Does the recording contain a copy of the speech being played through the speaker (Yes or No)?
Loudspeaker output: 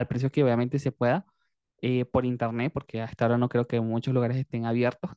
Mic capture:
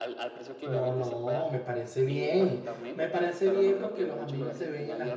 Yes